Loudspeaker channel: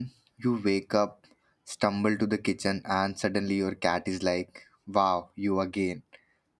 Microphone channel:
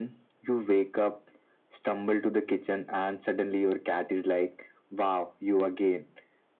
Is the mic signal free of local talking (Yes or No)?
Yes